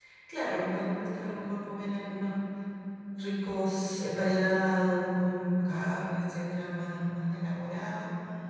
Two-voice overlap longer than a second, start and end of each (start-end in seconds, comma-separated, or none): none